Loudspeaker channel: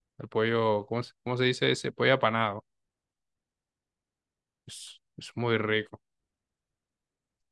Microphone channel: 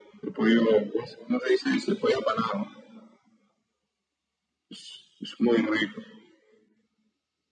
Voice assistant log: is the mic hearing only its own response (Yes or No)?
Yes